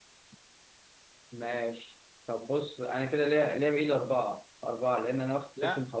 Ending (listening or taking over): listening